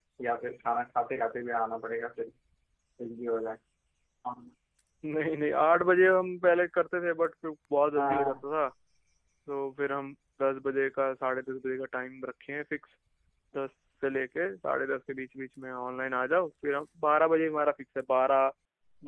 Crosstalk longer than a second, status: none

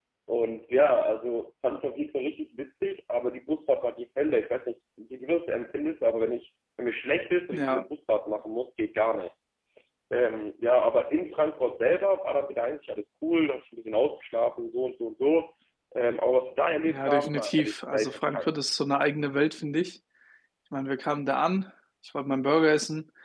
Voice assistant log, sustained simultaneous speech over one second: present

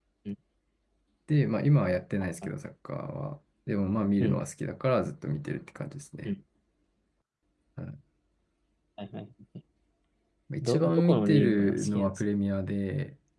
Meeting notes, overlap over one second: present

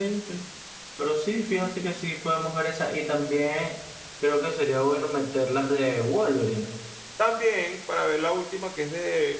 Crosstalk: none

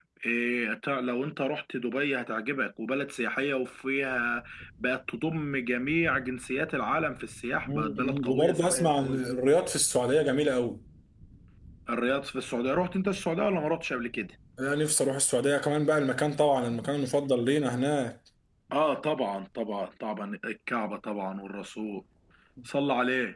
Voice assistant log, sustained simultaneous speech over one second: present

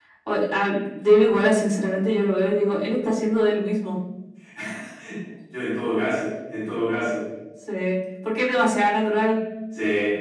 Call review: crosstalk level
none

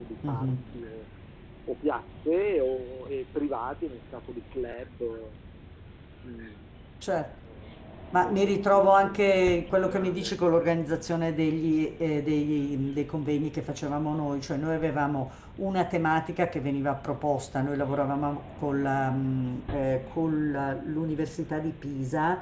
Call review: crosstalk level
present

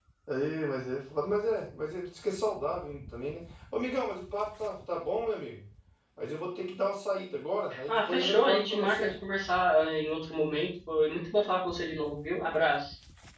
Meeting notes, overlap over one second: present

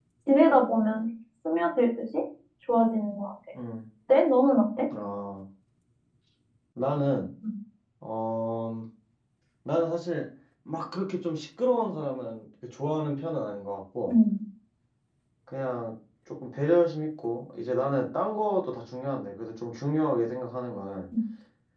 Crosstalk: none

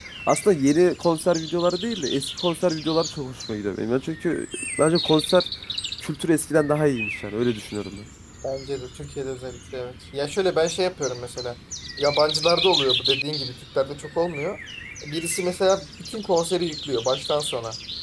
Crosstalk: none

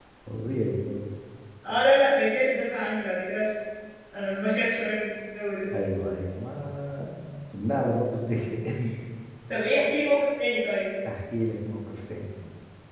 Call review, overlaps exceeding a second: none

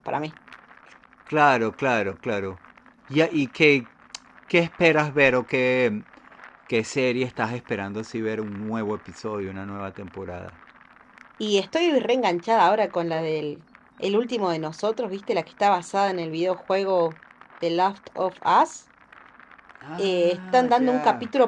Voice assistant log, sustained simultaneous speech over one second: present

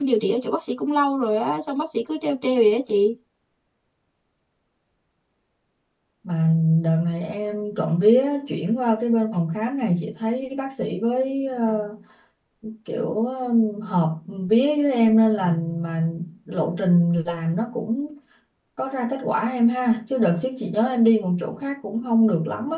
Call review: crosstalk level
none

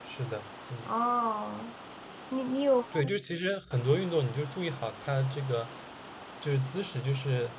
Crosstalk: none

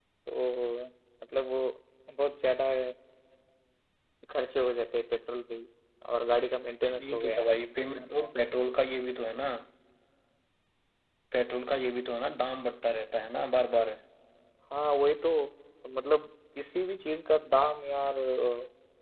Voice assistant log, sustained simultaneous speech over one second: none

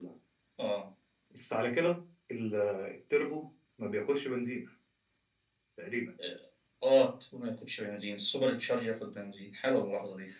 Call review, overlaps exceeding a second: none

